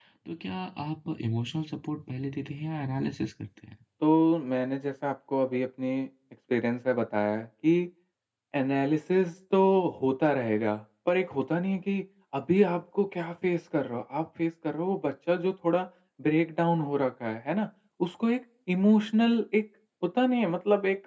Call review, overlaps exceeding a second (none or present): none